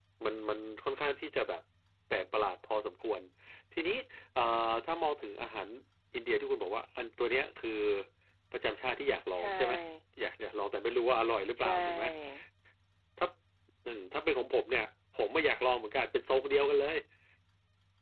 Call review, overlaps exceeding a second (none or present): none